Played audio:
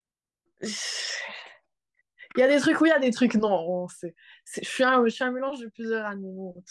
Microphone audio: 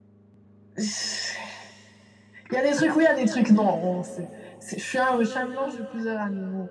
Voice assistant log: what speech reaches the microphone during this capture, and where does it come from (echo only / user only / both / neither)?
echo only